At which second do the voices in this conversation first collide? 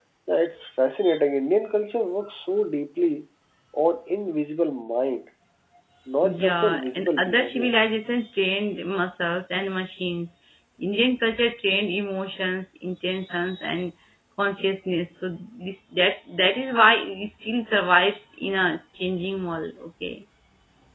6 s

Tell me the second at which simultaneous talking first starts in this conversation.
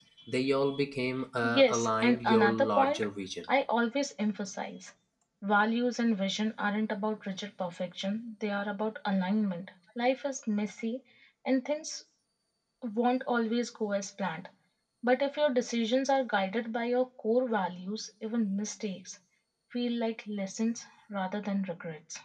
1 s

